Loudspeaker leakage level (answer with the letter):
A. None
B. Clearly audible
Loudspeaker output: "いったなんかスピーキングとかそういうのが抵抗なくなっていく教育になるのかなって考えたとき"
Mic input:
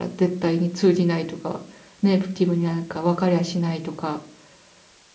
A